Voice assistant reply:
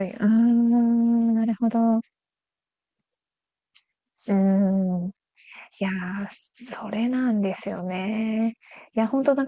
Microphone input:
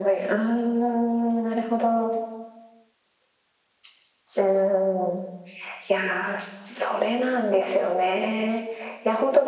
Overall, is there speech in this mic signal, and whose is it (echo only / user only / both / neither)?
echo only